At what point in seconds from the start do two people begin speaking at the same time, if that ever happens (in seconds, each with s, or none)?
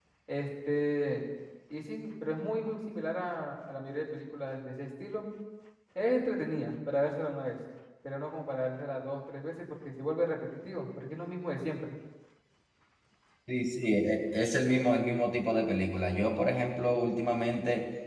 none